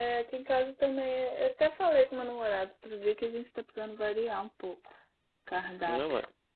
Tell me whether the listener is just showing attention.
No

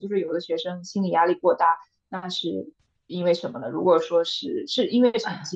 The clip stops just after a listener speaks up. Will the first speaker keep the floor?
No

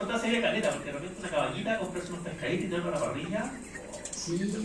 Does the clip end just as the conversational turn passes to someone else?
Yes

